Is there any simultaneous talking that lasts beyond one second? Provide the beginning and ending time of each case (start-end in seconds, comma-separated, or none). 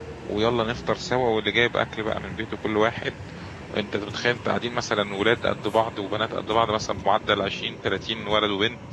none